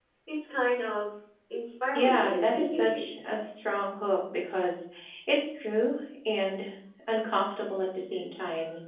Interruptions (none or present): present